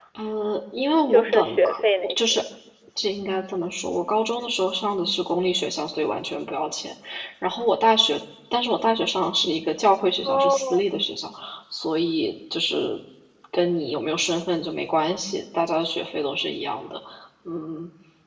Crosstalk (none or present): present